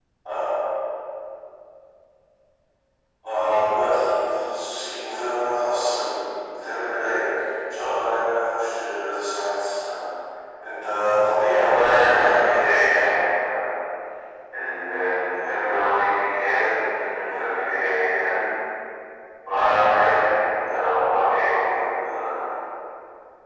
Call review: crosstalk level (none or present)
present